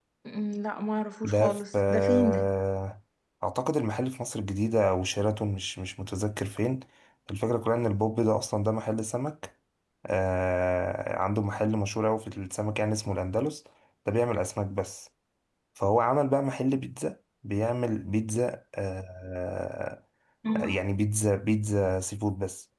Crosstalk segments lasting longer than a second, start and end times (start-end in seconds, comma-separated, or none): 1.2-2.5